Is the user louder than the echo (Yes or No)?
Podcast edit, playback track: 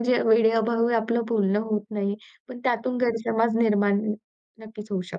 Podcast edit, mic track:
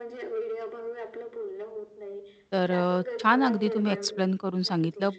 Yes